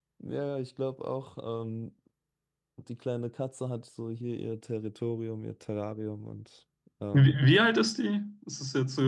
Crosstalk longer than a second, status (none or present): none